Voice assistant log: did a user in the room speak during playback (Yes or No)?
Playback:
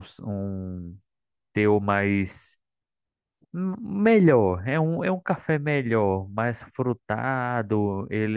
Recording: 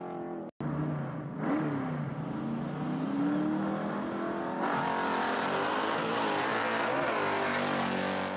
No